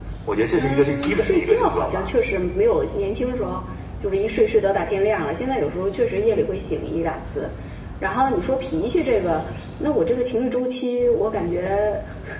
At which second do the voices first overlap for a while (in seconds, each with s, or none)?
0.6 s